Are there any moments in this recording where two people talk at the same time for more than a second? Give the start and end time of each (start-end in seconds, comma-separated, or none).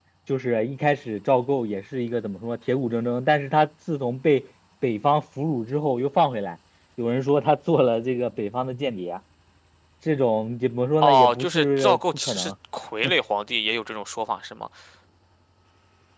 11.0-12.5